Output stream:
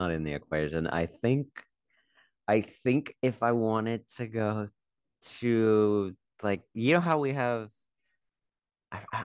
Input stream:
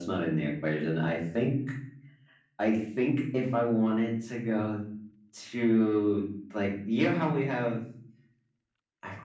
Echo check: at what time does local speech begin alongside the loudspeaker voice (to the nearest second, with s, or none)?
none